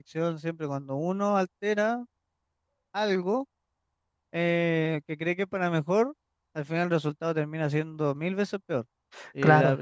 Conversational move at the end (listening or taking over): listening